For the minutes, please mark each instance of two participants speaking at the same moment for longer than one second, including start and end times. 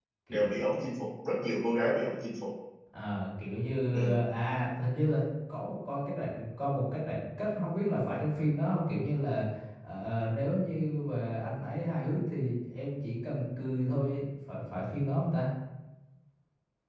none

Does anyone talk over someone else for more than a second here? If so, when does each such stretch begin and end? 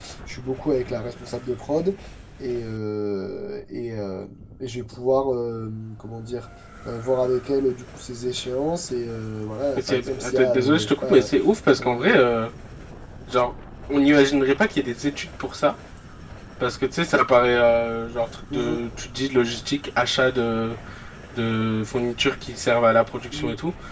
9.8-11.3

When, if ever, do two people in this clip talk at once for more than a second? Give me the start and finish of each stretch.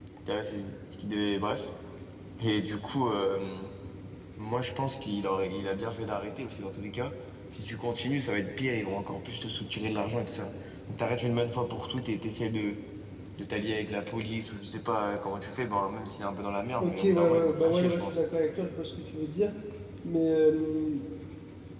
16.8-18.2

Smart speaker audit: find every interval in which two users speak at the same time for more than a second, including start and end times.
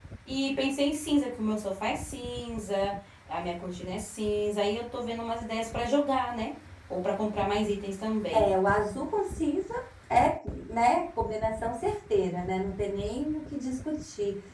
none

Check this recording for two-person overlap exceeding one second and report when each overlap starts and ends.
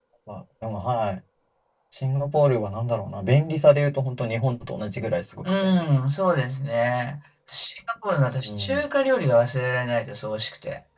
none

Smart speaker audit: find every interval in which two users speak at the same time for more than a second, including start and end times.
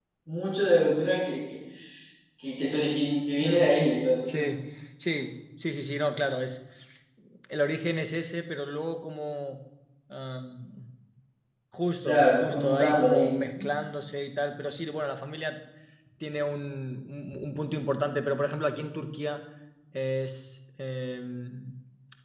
12.0-13.3

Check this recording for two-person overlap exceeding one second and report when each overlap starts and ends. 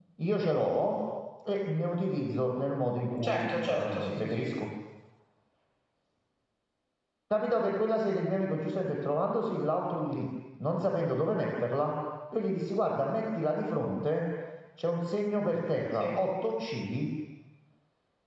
3.2-4.5

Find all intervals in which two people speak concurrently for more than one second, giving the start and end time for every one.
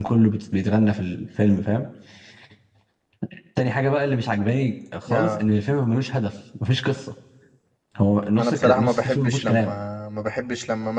8.3-9.7

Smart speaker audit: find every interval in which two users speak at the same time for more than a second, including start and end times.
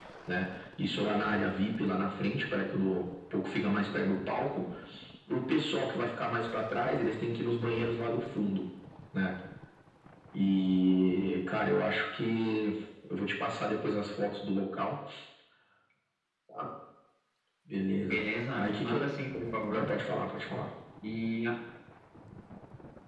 none

